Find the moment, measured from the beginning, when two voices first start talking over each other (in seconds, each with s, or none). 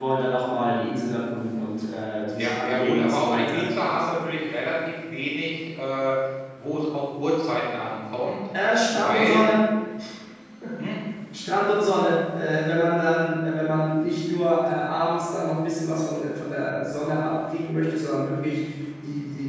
2.4 s